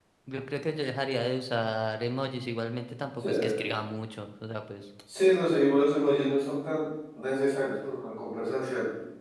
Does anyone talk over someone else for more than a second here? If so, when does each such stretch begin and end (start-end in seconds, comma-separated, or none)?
none